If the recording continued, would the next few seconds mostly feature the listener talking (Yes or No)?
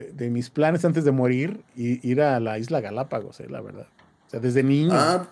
No